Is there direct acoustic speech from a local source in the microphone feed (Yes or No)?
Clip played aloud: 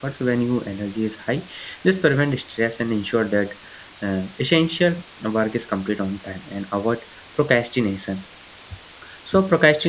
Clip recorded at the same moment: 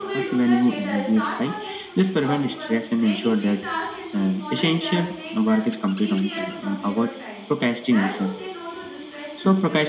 Yes